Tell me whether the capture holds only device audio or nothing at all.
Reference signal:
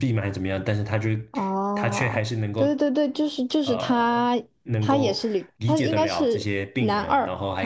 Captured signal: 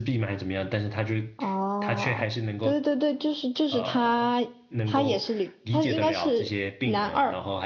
Yes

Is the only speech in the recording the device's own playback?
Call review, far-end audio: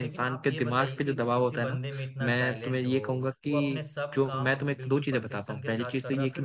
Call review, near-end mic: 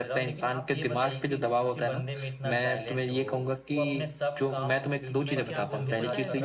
No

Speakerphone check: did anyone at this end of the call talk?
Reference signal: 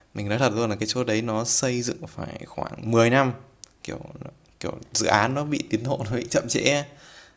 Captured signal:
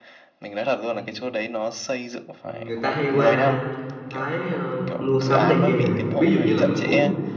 Yes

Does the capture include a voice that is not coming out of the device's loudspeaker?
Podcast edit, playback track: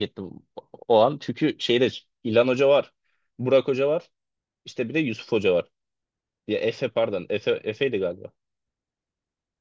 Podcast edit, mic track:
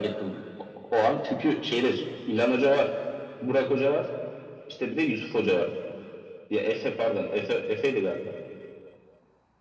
No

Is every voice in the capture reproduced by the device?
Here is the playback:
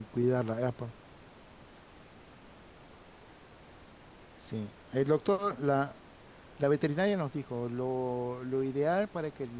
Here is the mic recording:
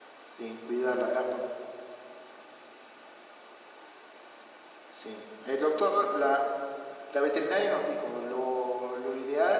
Yes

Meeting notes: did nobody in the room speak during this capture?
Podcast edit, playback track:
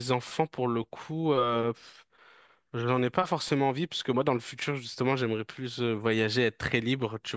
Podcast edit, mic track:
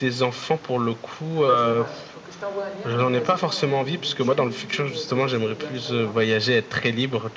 No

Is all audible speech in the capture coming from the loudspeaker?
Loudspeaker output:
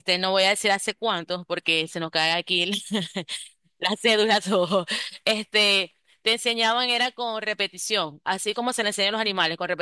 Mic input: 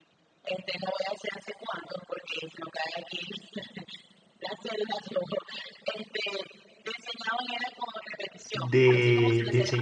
No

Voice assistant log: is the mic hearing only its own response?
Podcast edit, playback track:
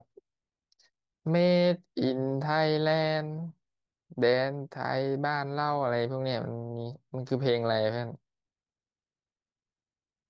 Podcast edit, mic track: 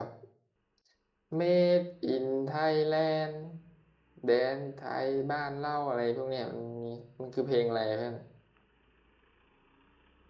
Yes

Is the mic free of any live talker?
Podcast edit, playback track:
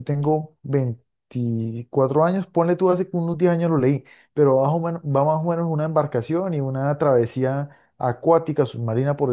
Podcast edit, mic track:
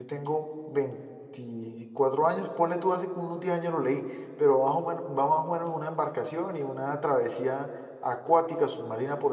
Yes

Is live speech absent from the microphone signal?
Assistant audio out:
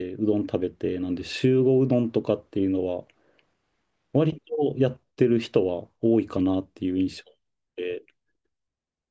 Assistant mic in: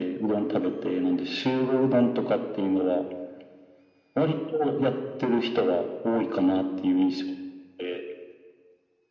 Yes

